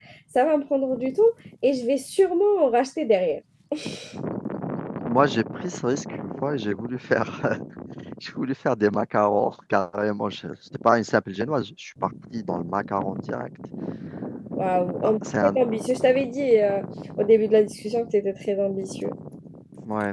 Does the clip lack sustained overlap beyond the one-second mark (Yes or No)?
Yes